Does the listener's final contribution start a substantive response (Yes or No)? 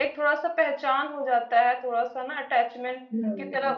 No